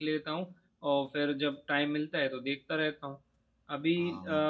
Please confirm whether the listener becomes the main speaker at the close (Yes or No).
No